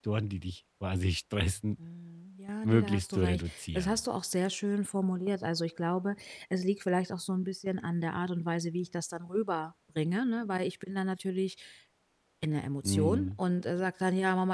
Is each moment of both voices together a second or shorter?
No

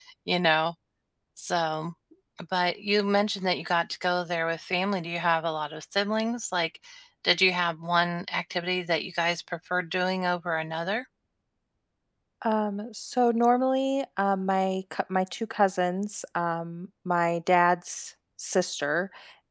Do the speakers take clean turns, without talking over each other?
Yes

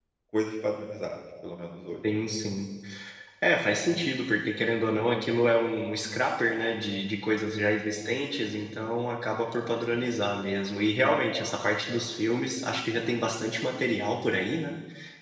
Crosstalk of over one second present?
No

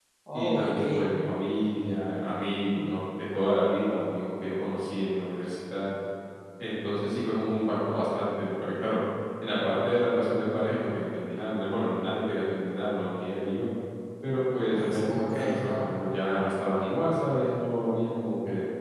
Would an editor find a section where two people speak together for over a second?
Yes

